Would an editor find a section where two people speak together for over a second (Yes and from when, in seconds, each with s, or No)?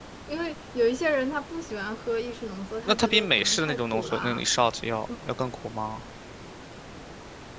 Yes, from 2.9 s